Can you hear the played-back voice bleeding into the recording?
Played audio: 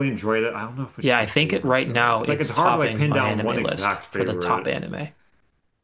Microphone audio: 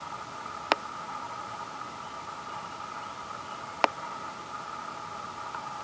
No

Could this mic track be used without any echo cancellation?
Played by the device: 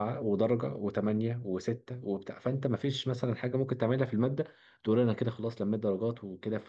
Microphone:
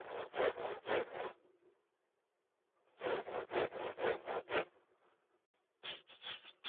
Yes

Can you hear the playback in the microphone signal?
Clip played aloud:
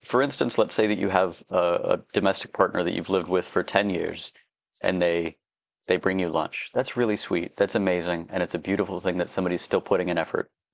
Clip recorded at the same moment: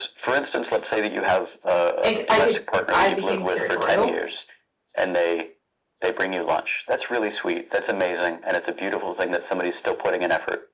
Yes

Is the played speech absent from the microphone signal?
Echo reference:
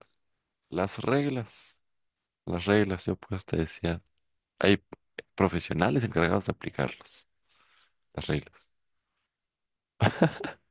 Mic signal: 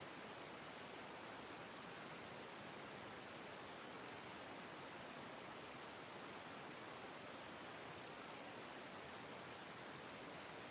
Yes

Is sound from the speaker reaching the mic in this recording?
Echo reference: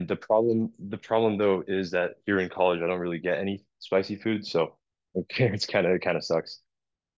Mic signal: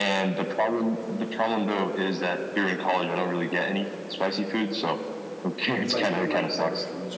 Yes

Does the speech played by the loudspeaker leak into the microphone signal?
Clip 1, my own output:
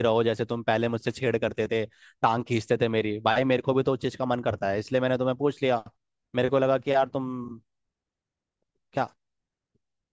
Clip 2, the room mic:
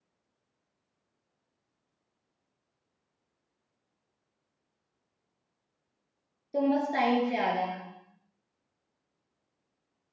No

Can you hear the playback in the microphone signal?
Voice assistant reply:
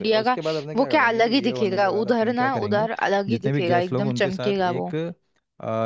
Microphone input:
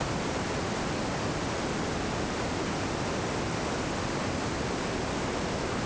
No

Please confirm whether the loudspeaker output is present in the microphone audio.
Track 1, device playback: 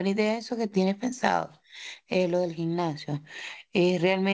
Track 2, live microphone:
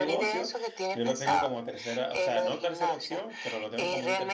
Yes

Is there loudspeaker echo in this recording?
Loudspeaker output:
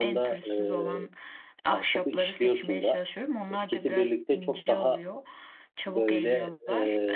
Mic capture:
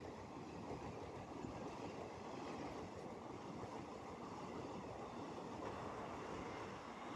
No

